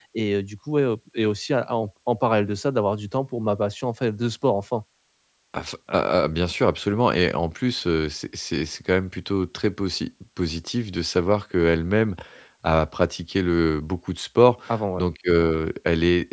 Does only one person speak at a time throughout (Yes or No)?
Yes